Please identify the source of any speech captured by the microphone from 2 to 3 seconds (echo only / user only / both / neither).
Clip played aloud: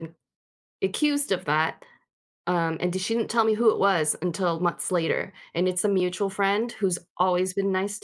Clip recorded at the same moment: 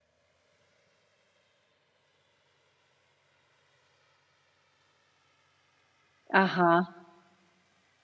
neither